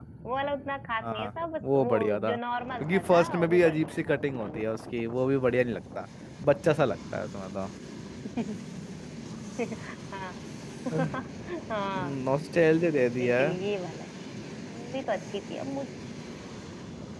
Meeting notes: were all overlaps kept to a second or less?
No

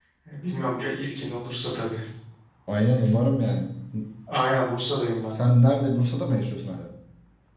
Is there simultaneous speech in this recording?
No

